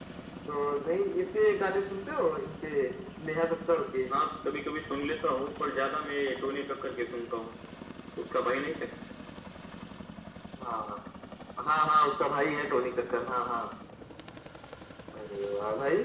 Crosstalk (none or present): none